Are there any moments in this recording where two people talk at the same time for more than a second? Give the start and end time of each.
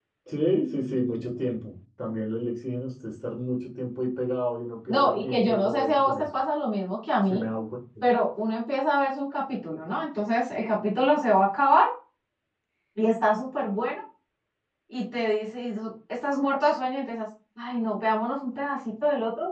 4.9-6.3

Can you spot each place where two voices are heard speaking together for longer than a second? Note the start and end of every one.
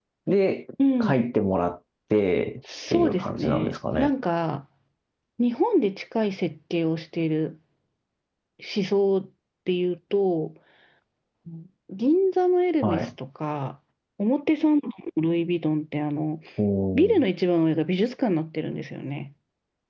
2.9-4.1

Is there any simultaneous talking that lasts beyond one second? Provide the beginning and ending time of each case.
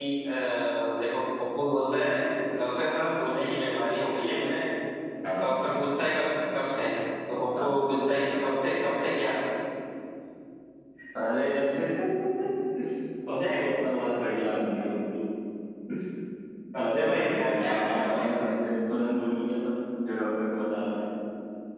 16.8-18.5

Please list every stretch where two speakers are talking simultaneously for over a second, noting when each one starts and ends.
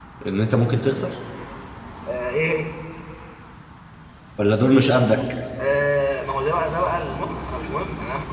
none

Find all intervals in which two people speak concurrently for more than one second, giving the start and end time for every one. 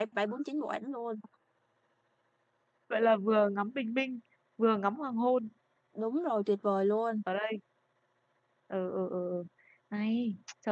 none

